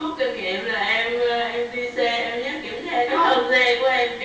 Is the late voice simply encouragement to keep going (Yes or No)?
Yes